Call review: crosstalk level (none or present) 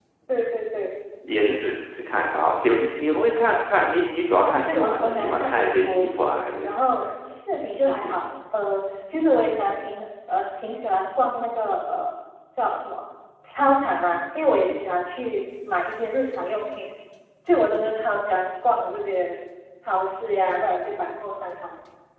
present